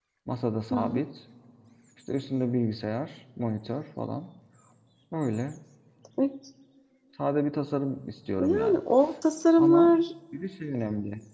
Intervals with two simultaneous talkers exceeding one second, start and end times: none

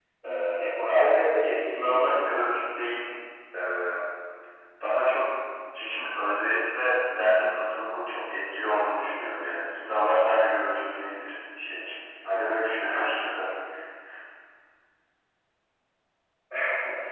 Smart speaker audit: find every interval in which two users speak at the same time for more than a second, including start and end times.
0.9-2.4

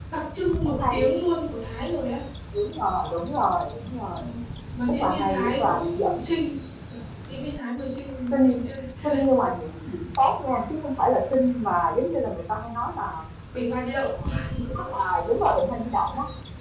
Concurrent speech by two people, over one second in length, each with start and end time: 5.0-6.2

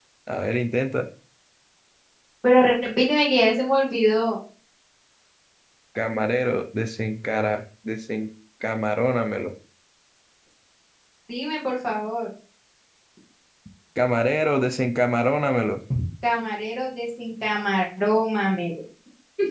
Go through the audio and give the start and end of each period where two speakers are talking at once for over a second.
none

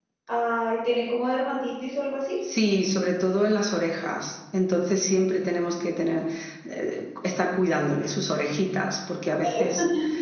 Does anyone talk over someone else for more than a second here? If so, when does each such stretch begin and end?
none

